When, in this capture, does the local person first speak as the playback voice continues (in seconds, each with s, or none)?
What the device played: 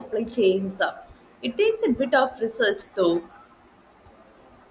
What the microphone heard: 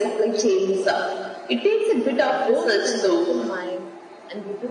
2.3 s